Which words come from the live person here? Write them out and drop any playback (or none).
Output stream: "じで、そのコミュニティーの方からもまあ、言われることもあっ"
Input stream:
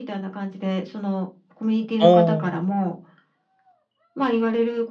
おお。